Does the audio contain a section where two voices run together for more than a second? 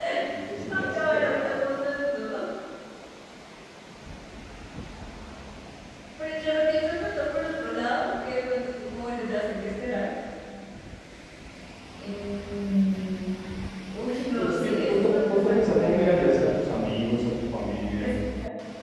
Yes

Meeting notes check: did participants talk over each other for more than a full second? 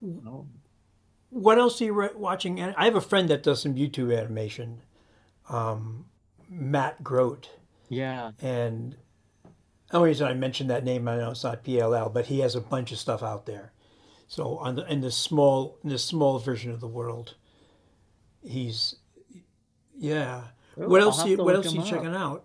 Yes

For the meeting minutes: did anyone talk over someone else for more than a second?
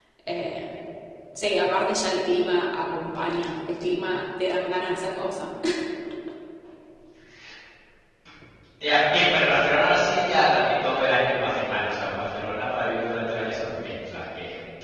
No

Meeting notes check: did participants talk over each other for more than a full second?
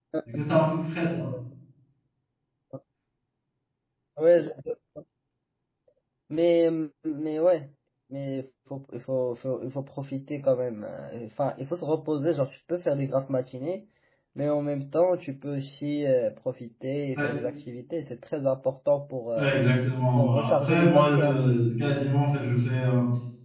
Yes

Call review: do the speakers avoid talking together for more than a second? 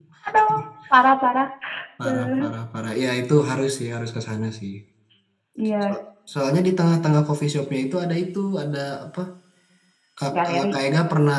Yes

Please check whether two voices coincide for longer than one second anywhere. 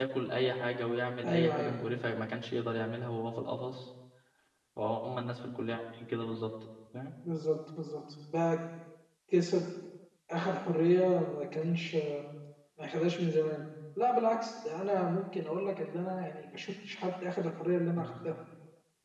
No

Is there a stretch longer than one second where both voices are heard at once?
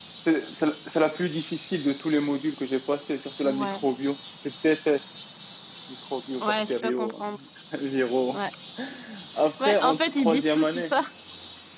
Yes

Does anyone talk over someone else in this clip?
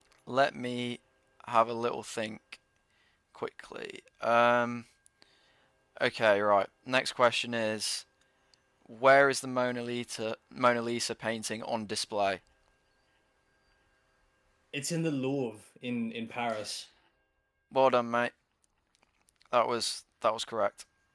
No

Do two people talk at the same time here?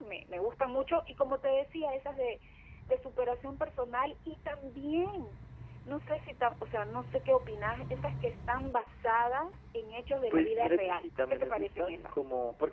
Yes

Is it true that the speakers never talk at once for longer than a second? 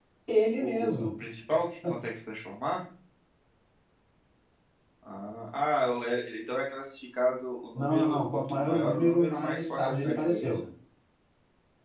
No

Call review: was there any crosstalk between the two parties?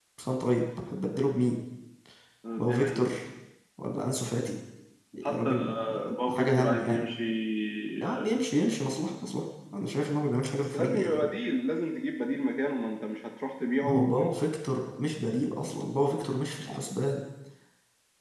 Yes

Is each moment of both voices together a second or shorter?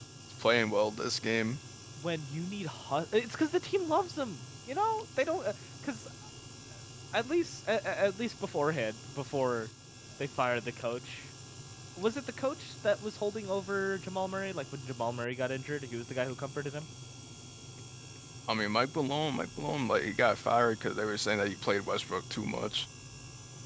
Yes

